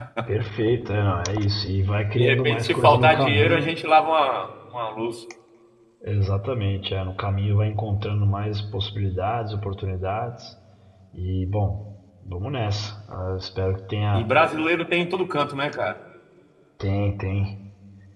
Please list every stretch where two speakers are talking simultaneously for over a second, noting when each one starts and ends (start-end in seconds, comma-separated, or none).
2.2-3.7